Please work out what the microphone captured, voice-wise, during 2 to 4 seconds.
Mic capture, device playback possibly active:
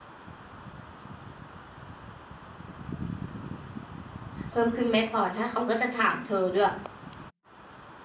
neither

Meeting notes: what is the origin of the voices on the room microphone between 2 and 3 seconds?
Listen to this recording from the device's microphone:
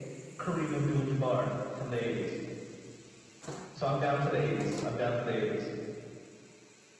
echo only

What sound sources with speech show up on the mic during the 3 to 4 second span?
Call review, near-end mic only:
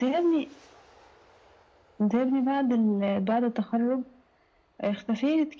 echo only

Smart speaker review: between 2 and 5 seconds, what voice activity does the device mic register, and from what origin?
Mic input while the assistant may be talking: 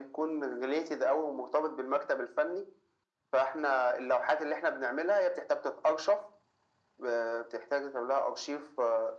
echo only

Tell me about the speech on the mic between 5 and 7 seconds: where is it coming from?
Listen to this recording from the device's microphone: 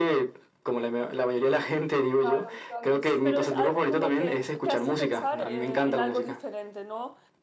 both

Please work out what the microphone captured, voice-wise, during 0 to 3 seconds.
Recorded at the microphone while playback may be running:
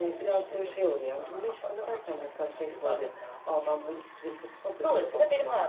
echo only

